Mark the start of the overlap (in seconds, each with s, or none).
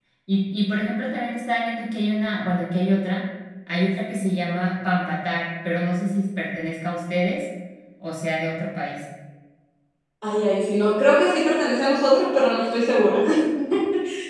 none